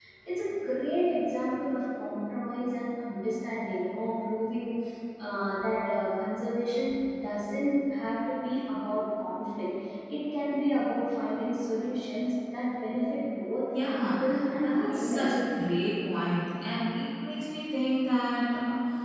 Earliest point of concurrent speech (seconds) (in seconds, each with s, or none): 13.7 s